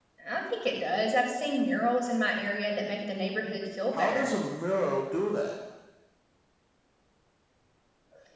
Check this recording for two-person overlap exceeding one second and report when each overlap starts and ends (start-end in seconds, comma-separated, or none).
none